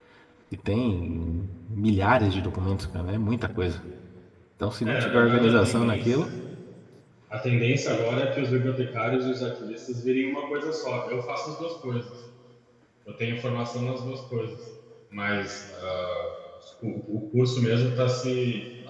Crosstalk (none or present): present